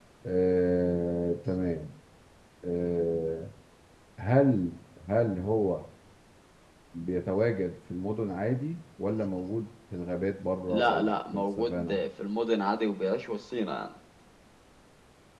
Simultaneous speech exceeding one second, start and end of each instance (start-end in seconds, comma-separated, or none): 10.7-12.0